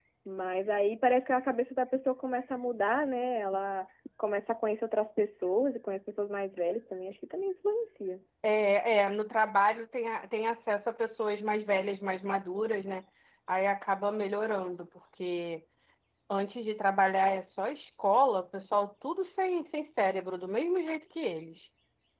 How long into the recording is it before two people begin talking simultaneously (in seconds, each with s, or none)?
none